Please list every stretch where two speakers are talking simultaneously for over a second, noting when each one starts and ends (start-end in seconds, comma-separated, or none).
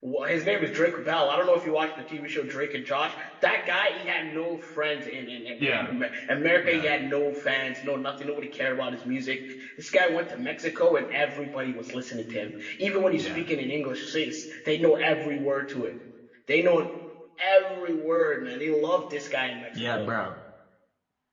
none